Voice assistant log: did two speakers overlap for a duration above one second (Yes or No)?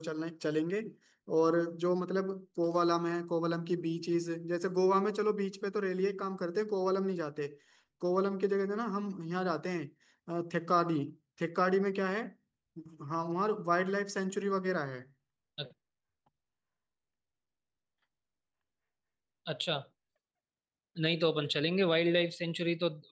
No